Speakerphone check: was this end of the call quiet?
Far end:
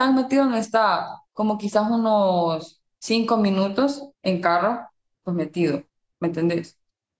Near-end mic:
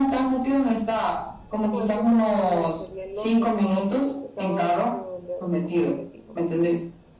No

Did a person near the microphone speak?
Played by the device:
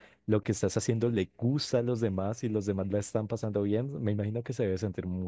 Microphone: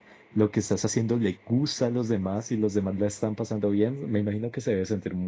No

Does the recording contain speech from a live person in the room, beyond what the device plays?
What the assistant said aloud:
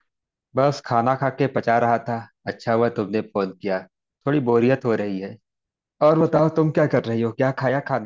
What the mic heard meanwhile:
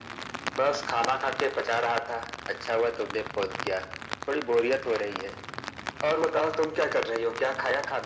No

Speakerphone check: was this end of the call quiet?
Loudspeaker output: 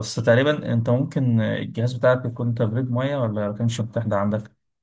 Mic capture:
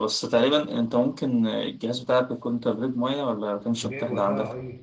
No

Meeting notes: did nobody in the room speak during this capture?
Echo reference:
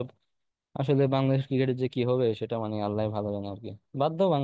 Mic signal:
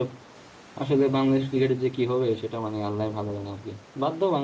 Yes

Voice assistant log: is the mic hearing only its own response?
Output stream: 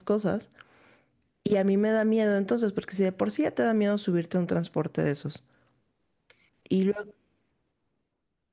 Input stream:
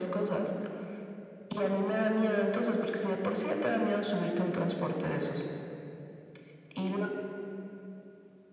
Yes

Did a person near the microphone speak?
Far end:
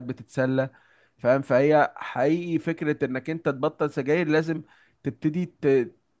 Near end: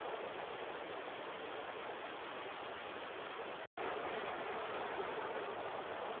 No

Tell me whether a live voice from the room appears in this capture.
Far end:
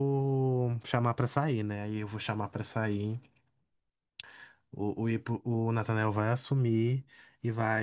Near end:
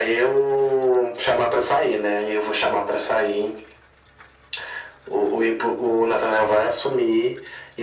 No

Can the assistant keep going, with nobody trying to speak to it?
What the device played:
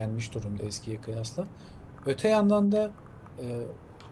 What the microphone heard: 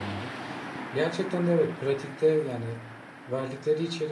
No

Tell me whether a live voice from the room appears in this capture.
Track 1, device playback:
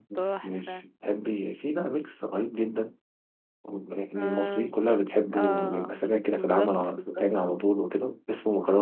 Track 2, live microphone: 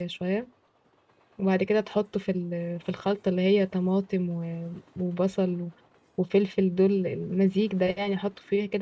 Yes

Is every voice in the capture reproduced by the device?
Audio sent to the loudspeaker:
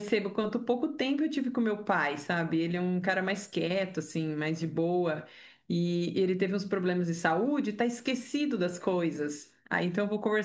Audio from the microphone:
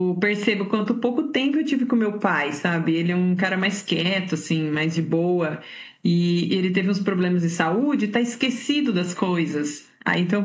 Yes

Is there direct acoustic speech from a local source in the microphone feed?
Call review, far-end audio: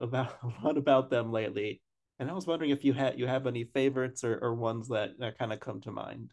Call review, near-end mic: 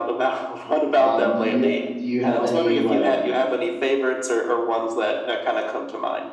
Yes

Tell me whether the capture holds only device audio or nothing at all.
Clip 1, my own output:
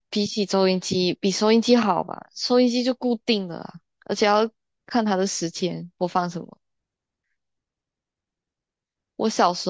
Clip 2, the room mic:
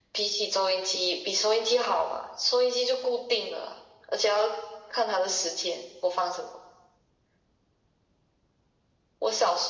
Yes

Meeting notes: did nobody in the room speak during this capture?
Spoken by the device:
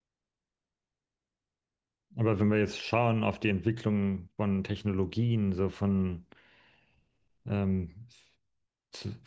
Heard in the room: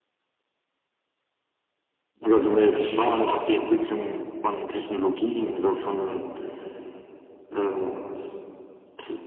Yes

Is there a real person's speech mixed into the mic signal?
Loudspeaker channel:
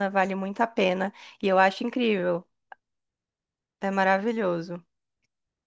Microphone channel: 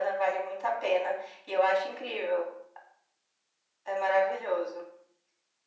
No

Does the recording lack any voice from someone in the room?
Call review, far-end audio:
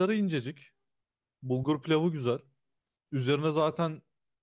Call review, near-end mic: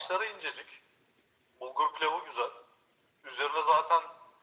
Yes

